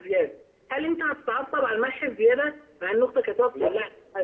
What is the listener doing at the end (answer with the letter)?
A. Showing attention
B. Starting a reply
A